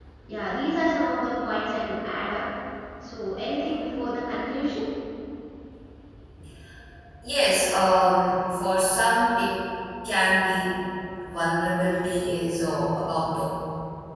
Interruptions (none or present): none